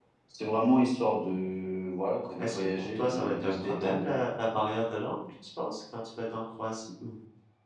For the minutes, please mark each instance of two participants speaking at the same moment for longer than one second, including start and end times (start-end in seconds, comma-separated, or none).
2.4-4.1